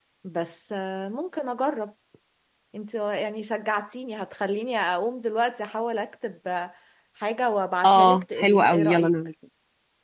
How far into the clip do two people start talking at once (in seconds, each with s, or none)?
7.8 s